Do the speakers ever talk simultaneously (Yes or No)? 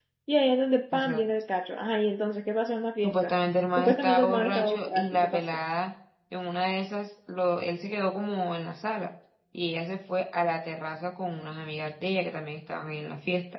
Yes